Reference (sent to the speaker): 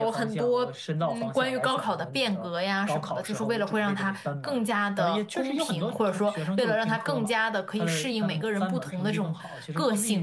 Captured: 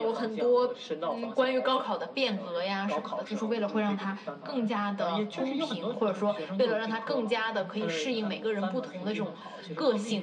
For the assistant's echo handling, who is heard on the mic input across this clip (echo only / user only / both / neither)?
both